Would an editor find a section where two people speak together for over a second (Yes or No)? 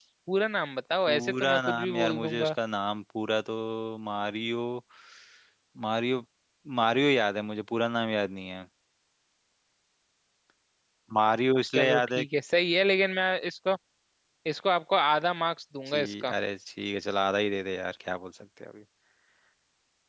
Yes